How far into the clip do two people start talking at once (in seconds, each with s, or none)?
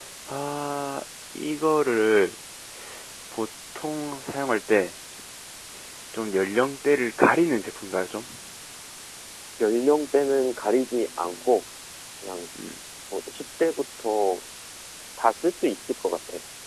none